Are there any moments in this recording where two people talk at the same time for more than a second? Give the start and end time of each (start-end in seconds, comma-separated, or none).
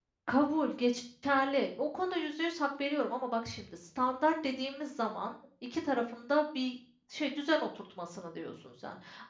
none